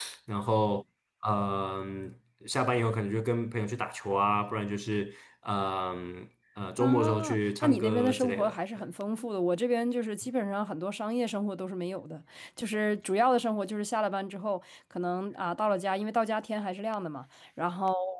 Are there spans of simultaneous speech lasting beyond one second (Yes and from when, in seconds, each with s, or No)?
Yes, from 6.8 s